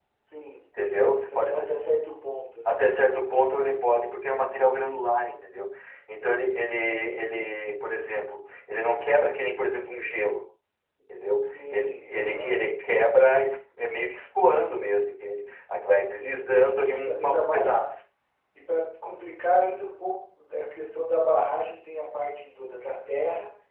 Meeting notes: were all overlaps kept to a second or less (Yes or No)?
No